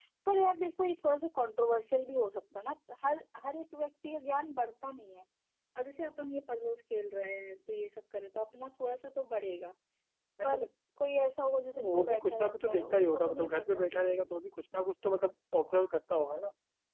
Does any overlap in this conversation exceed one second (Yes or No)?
Yes